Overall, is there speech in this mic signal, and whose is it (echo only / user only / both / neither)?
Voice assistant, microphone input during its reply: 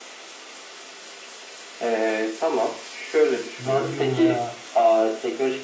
both